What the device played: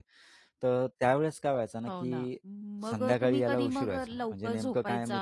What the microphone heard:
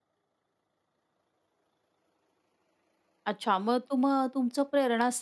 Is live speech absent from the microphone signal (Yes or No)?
No